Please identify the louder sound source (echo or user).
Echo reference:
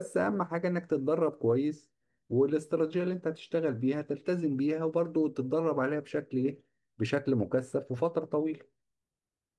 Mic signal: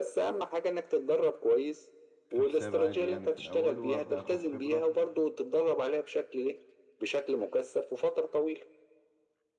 echo